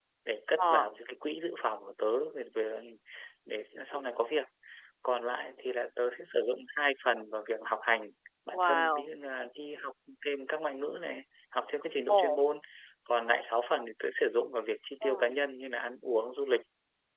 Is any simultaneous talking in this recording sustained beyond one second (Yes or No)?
No